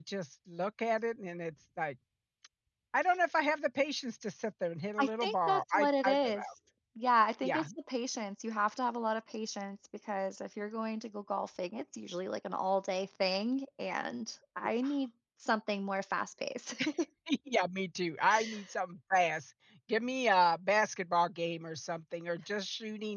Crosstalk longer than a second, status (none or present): present